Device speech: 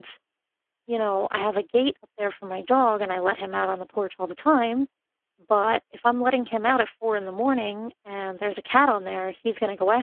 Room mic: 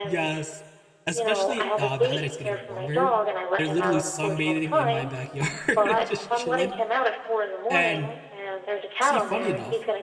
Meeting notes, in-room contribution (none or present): present